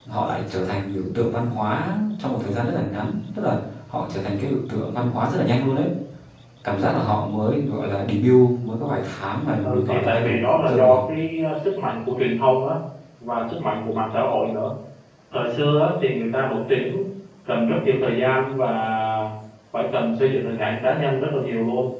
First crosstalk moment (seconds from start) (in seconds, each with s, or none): 9.6 s